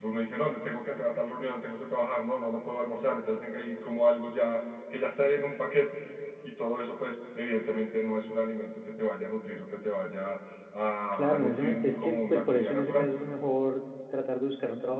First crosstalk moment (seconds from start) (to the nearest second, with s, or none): 11 s